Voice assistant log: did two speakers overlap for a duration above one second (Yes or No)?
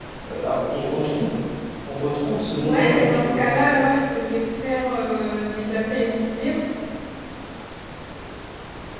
Yes